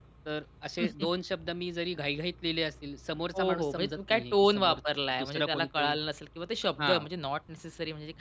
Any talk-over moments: Yes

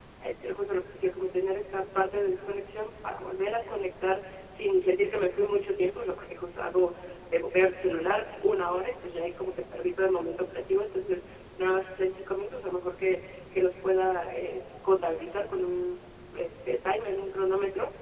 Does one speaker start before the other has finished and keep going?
No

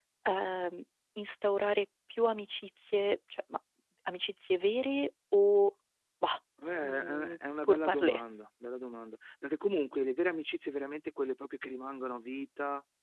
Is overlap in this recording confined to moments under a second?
No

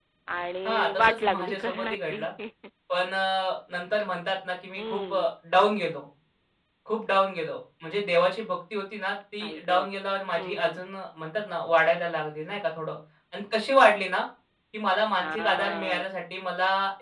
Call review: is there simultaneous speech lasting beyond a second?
Yes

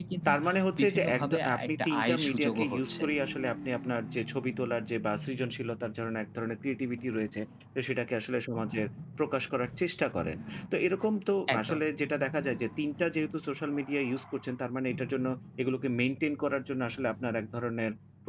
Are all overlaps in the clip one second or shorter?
No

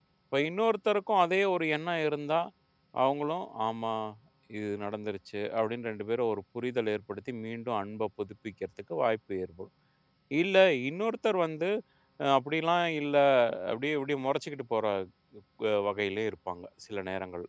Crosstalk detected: No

